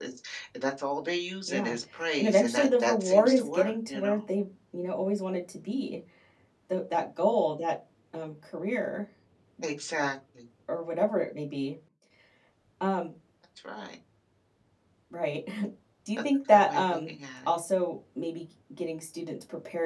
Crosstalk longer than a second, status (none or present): present